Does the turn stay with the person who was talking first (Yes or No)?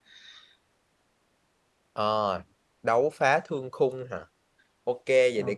Yes